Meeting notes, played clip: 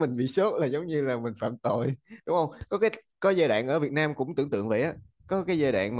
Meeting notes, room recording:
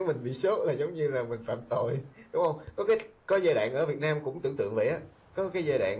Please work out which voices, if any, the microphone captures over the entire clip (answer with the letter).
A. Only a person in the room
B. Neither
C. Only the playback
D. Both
C